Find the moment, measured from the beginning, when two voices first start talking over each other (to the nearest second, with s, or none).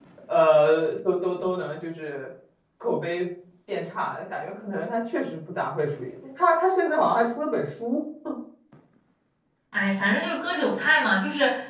none